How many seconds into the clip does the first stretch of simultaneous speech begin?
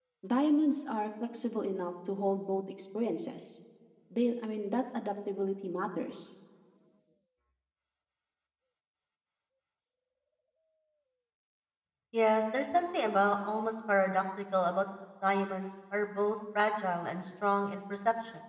none

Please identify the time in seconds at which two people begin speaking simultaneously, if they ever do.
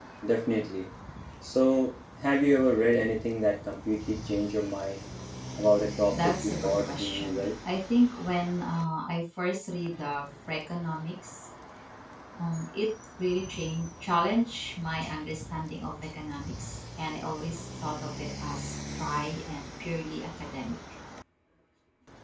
6.1 s

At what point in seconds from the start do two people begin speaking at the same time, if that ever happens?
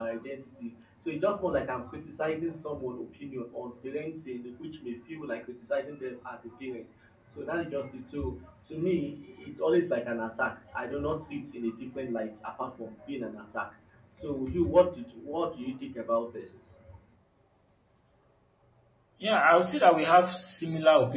none

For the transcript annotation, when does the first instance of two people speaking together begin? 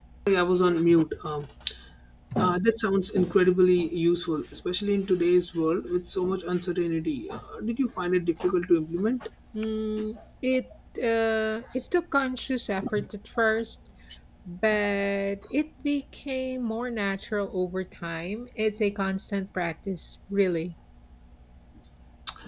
none

